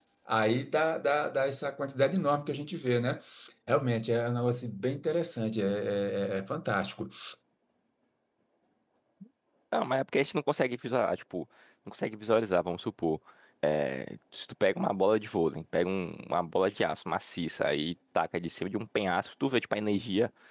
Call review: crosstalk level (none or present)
none